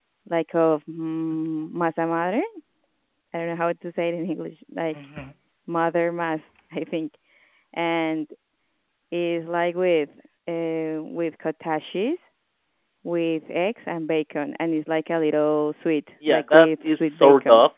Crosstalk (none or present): present